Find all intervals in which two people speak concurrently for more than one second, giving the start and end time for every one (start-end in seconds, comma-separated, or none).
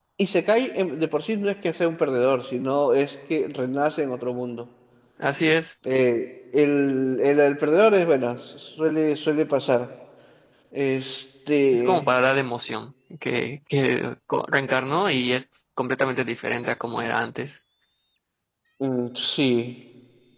none